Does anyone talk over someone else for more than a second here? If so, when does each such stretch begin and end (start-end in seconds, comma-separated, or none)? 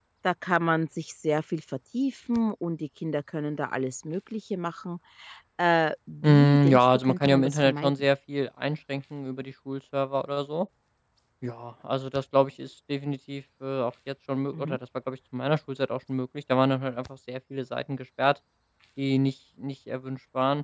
6.2-7.9